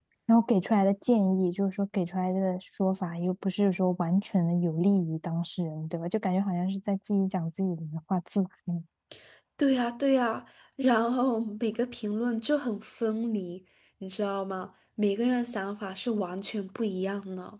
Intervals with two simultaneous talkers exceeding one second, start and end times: none

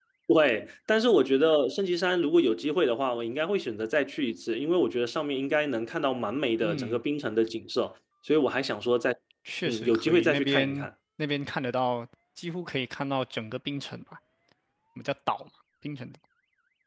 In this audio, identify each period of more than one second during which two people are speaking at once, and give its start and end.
9.7-10.9

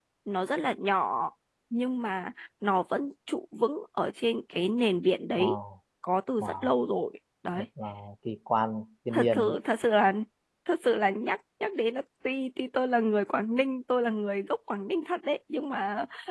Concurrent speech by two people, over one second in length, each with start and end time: none

